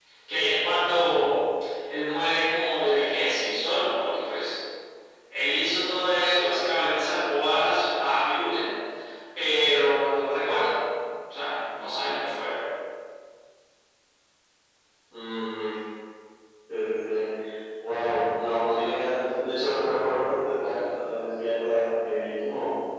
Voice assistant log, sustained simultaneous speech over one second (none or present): none